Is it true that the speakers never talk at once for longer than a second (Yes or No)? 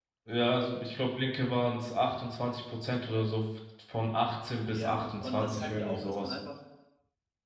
No